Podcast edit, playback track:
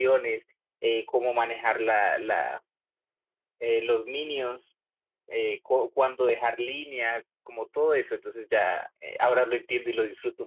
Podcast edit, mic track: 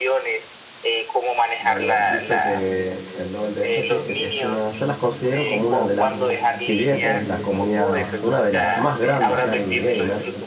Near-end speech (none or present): present